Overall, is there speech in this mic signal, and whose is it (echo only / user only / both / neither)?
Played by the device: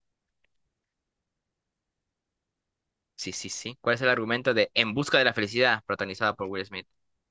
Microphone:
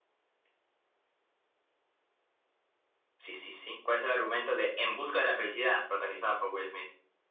echo only